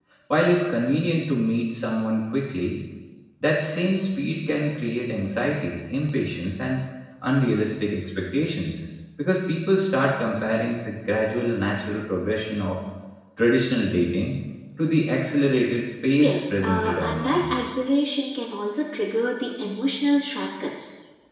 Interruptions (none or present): present